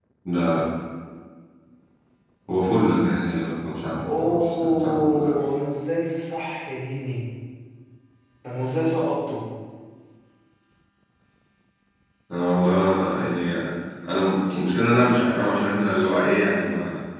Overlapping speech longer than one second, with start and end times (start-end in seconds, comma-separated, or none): 4.0-5.3